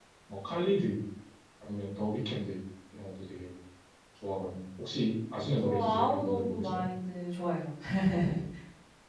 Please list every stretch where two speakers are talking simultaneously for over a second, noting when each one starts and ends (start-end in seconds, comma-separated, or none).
5.6-6.8